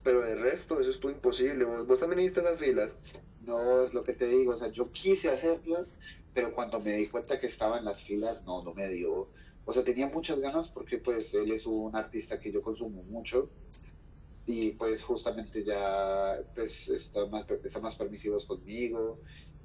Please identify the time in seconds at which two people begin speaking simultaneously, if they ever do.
none

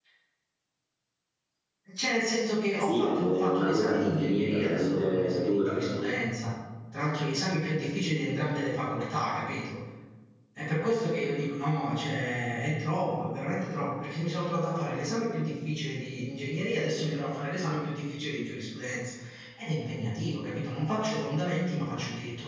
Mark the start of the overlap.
2.8 s

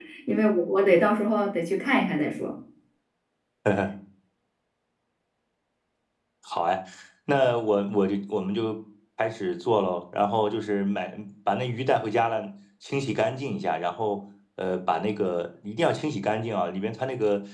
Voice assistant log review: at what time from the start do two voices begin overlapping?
none

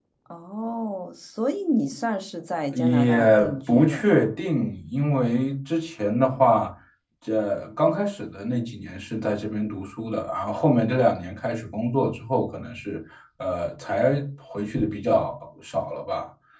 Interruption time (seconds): 2.7 s

